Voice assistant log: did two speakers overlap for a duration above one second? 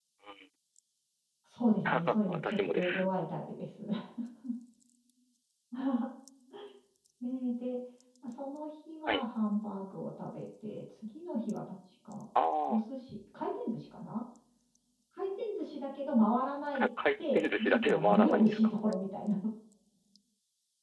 Yes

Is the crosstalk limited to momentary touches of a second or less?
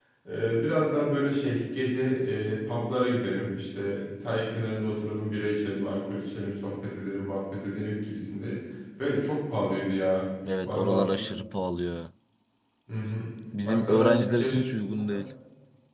No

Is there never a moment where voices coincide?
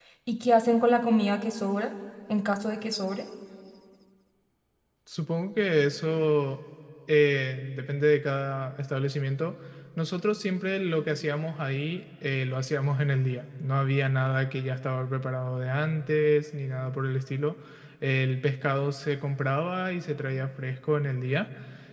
Yes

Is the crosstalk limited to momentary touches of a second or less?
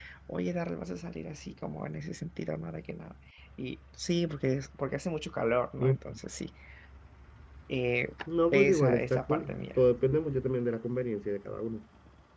No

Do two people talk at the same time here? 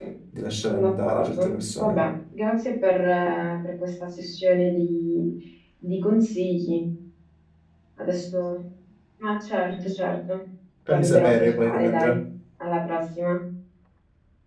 Yes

